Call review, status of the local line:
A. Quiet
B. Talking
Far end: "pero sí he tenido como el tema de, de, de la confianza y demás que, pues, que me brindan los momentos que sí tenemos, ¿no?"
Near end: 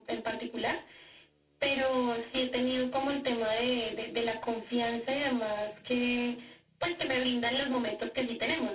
A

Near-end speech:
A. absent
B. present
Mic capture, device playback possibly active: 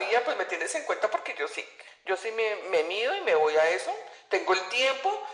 A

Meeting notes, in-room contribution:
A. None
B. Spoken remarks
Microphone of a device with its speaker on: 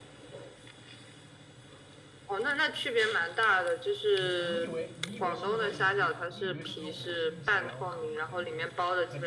B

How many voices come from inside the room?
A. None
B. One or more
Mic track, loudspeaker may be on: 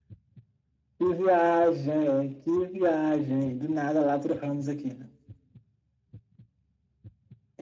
A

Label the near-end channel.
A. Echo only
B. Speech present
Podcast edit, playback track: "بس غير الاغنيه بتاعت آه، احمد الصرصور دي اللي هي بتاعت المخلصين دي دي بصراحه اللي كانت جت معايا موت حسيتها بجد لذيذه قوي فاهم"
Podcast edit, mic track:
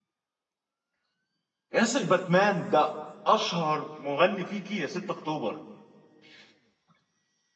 B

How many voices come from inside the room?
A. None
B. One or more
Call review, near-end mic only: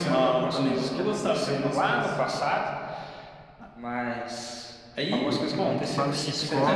B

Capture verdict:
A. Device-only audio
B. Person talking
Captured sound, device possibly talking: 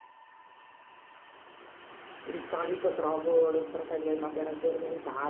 B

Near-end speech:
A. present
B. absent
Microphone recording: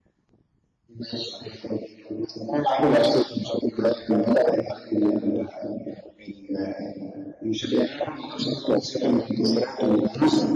B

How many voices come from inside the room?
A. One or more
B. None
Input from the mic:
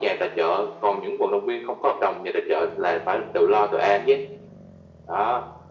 B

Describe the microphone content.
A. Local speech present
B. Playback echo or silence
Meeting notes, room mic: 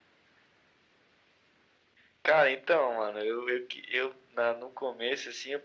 B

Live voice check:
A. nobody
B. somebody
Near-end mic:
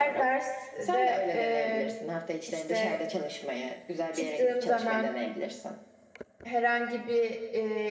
B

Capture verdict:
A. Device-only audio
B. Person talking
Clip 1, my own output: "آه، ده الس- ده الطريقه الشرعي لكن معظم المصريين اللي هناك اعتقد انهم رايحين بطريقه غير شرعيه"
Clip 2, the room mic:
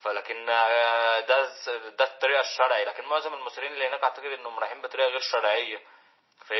A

